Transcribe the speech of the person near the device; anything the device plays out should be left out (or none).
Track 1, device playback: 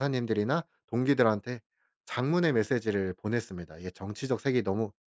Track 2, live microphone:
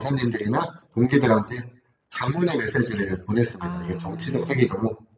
아.